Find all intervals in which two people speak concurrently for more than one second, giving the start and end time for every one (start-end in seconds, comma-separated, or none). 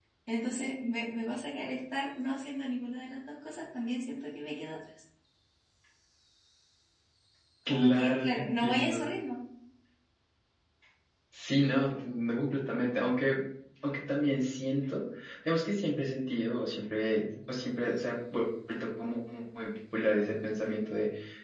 7.7-9.1